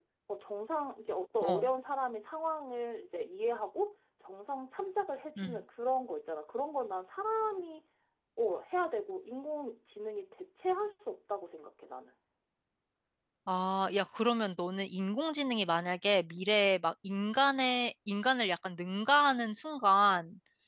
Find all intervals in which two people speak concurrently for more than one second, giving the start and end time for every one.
none

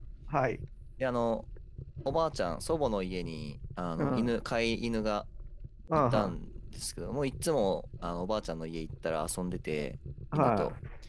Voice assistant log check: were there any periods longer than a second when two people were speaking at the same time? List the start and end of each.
none

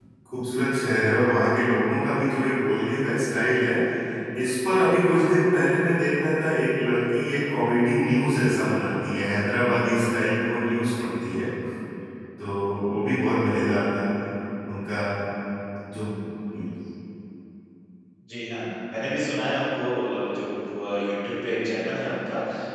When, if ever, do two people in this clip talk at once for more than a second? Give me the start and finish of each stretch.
none

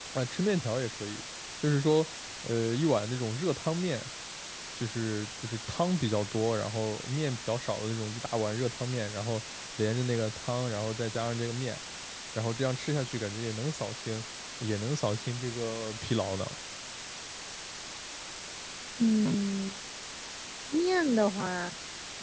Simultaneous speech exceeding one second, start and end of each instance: none

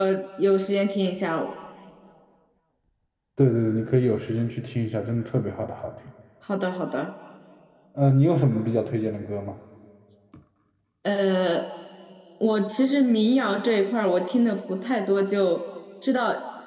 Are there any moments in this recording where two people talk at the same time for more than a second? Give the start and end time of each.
none

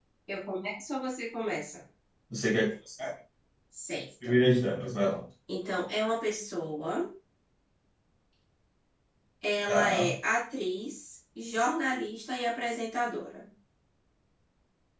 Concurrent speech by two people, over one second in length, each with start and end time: none

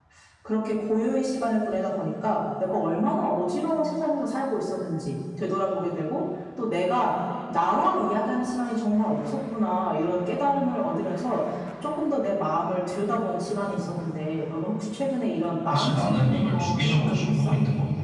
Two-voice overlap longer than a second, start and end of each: 15.7-17.5

